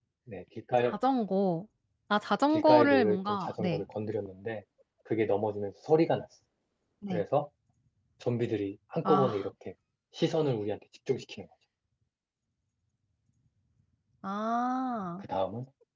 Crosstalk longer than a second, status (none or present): present